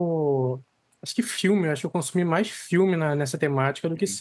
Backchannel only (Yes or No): No